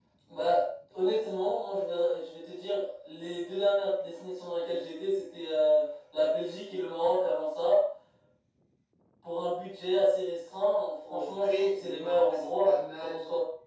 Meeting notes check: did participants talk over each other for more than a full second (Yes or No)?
Yes